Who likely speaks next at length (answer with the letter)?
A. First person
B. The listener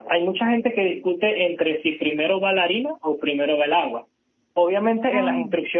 A